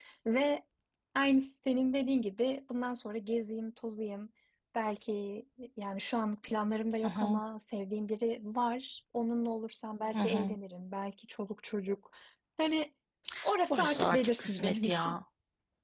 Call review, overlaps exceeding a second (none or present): present